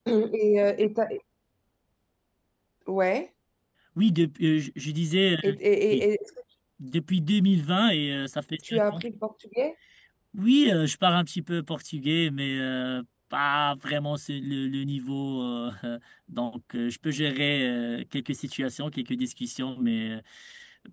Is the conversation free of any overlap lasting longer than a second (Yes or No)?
Yes